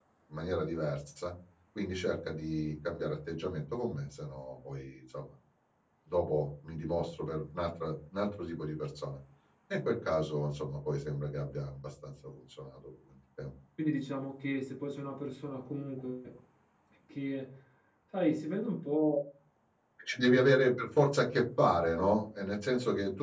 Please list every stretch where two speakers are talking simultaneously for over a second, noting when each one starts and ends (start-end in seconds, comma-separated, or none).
none